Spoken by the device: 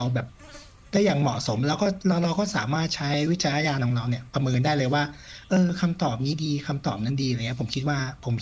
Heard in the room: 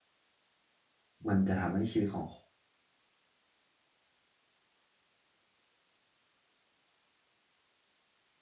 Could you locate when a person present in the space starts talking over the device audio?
1.3 s

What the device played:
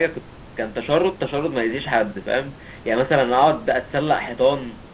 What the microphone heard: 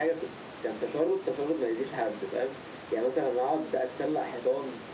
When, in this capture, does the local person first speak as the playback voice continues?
none

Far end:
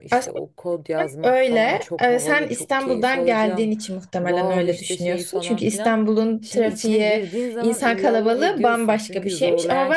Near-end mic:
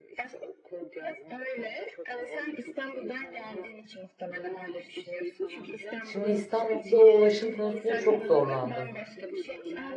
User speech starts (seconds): 6.0 s

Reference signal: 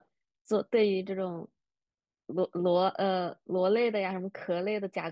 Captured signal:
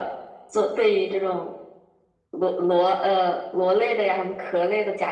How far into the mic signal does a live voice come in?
none

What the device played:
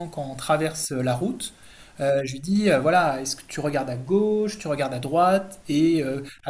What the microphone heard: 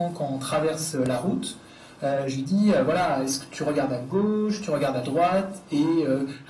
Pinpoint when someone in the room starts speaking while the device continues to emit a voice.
none

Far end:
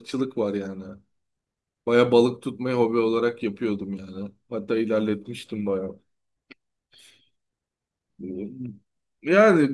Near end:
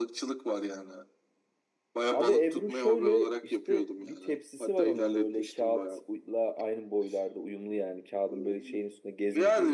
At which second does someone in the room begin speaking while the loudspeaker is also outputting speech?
2.1 s

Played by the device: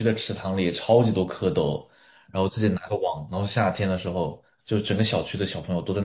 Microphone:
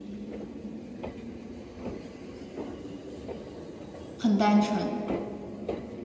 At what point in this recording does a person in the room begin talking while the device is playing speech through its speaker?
4.2 s

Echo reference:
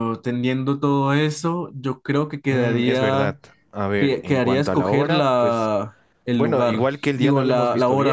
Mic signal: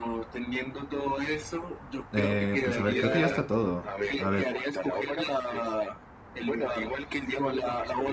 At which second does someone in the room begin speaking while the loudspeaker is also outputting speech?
2.1 s

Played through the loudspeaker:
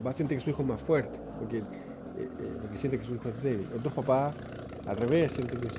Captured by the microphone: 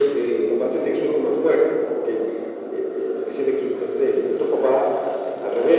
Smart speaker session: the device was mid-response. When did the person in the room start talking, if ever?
none

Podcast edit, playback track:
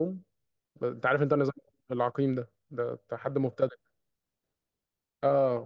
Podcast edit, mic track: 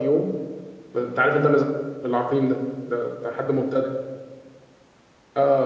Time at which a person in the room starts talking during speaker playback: none

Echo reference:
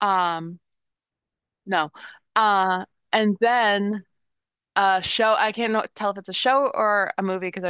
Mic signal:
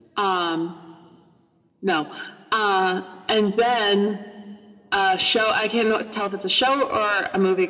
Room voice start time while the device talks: none

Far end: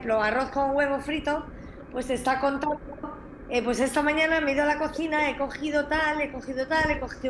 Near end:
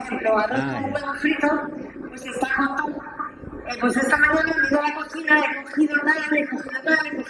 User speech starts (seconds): 0.5 s

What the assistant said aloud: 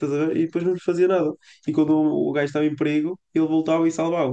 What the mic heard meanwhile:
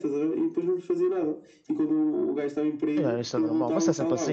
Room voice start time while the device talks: 3.0 s

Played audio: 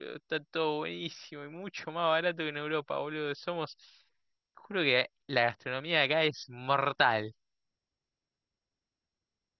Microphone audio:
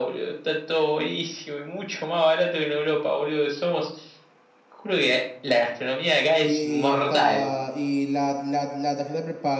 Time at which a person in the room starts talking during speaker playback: 6.4 s

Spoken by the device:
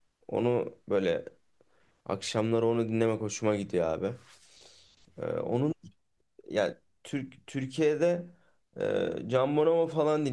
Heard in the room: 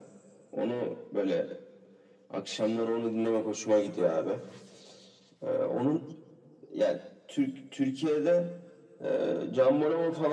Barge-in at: none

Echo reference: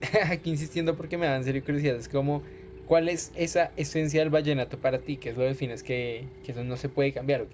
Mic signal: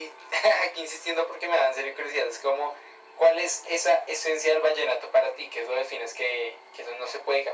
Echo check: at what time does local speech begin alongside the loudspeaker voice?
none

